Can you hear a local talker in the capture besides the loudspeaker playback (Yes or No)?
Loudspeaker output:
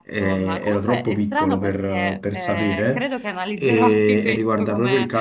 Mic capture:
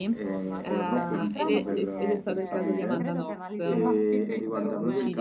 Yes